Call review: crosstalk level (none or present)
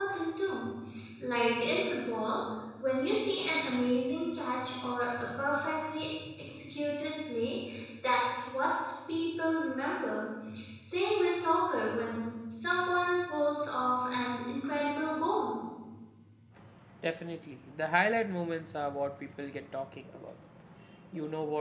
none